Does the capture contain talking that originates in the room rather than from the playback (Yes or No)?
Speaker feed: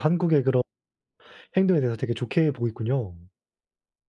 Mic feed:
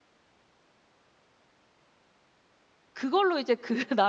Yes